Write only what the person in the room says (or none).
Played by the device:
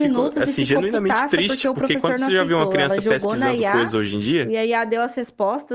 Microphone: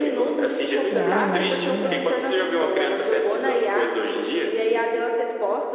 Não, imagina.